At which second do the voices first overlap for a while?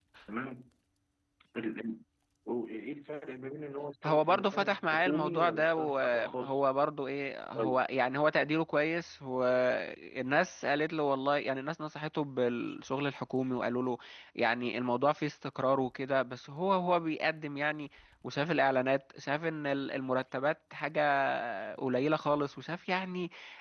4.0 s

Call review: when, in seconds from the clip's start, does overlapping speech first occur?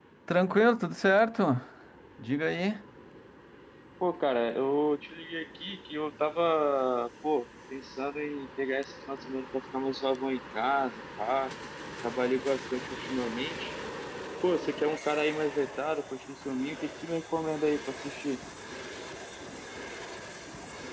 none

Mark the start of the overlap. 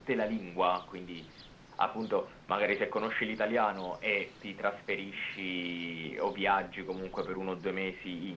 none

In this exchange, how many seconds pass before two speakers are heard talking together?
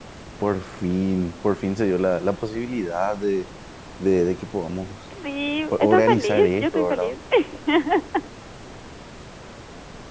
5.7 s

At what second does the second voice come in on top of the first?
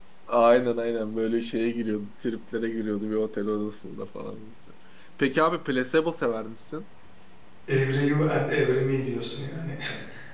none

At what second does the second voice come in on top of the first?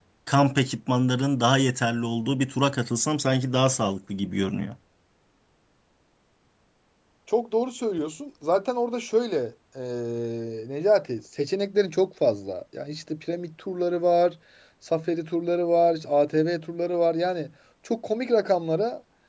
none

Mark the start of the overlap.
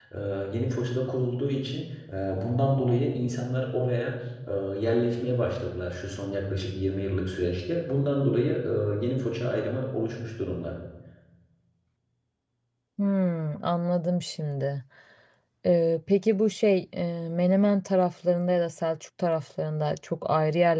none

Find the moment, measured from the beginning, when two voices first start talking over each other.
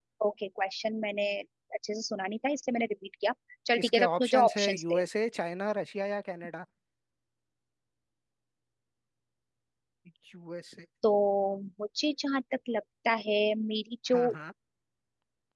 3.8 s

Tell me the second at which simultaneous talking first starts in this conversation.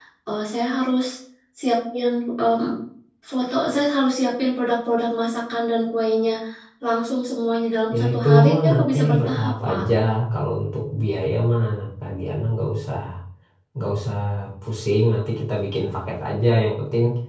7.9 s

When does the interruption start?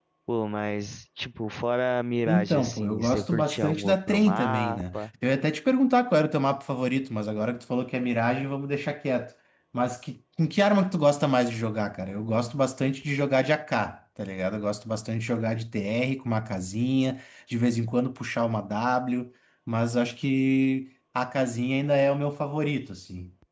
2.3 s

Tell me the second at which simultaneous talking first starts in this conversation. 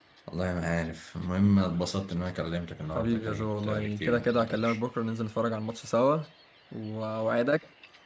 2.9 s

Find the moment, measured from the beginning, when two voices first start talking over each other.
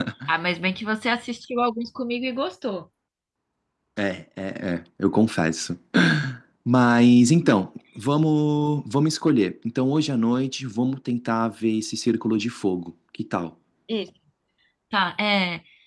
none

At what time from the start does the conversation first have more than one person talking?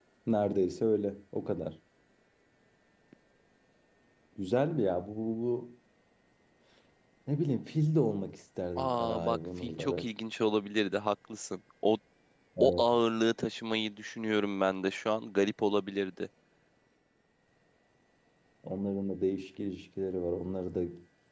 8.8 s

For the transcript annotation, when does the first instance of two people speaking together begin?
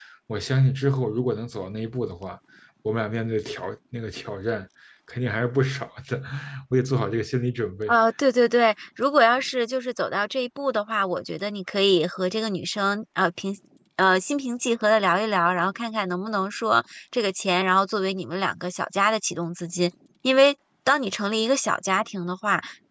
none

